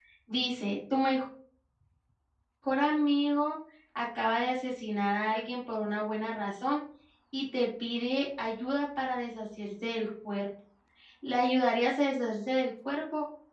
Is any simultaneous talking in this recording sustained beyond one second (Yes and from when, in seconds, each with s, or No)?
No